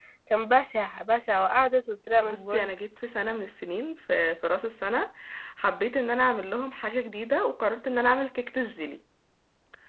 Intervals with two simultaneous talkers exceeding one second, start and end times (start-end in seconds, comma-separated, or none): none